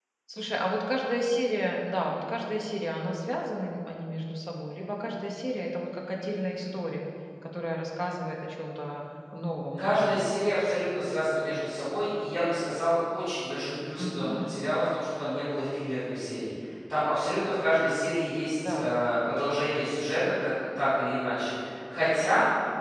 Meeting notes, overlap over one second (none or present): none